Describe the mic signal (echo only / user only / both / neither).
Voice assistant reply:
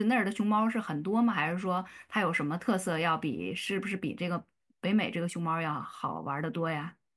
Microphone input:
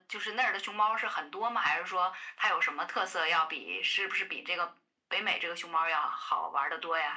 echo only